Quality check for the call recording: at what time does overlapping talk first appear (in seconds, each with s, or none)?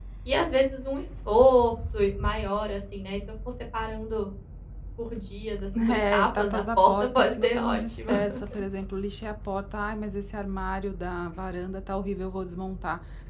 5.7 s